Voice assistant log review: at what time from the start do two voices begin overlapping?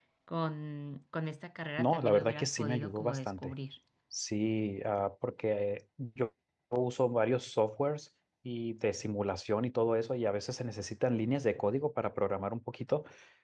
1.8 s

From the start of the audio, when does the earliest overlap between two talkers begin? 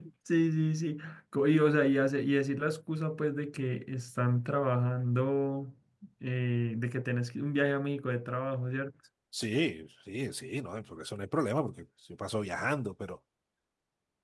none

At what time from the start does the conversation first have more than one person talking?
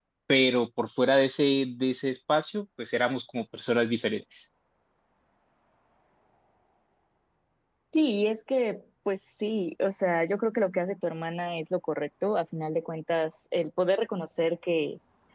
none

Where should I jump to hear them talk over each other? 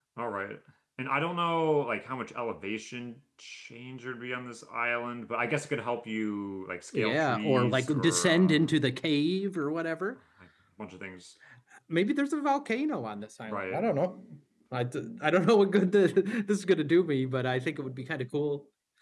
6.9 s

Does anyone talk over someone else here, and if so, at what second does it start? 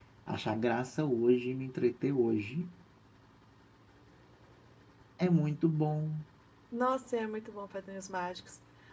none

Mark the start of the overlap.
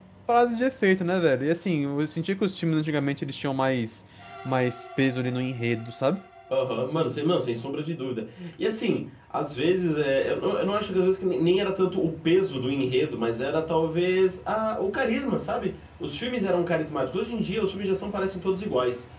none

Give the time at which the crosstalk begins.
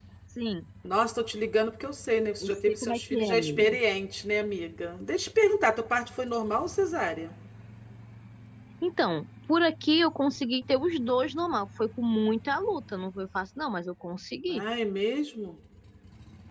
2.4 s

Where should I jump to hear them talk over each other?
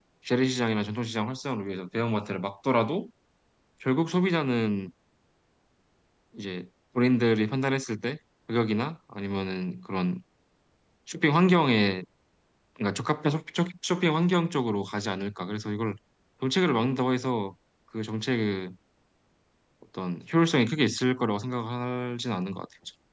none

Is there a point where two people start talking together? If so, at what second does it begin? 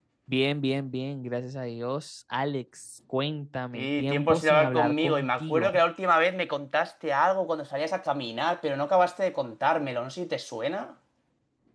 3.8 s

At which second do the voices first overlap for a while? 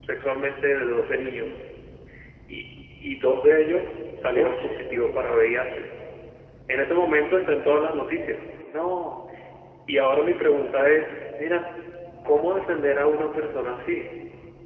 4.3 s

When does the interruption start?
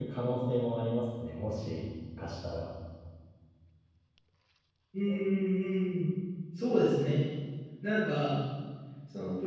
none

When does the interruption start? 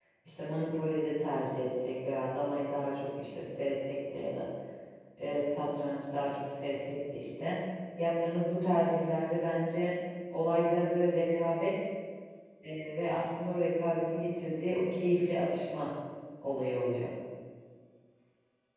none

